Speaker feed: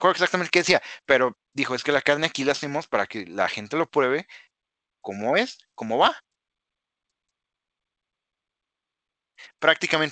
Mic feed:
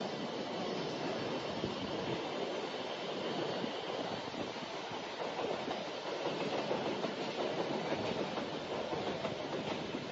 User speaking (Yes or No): No